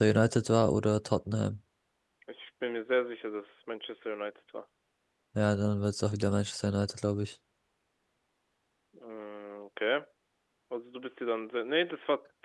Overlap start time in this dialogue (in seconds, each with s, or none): none